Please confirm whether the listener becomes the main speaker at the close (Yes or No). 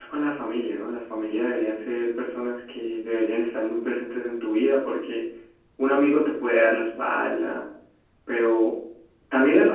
No